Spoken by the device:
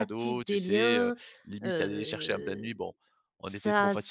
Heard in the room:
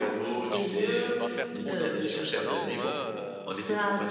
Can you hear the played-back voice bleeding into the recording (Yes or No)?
Yes